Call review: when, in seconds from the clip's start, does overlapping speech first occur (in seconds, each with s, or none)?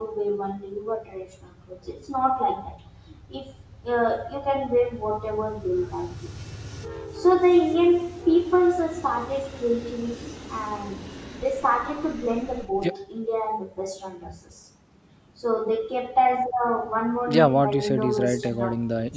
17.3 s